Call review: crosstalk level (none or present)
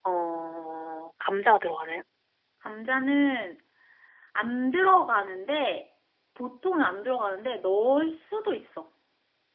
none